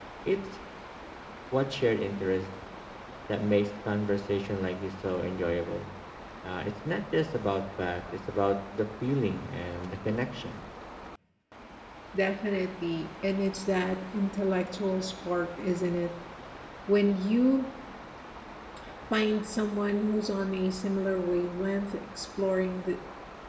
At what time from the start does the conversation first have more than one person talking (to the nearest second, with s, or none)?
none